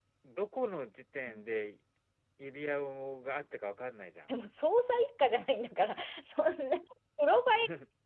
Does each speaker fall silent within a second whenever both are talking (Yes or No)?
Yes